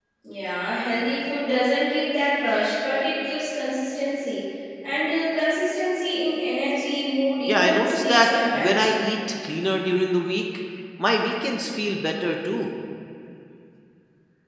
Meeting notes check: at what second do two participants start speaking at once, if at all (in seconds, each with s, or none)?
7.5 s